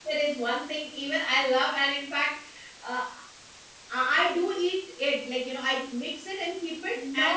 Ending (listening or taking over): taking over